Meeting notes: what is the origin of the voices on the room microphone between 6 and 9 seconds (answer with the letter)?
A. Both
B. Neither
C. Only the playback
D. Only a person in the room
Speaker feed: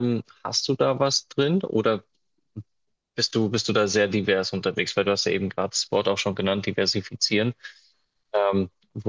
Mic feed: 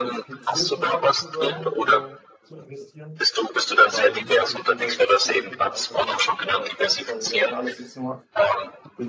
A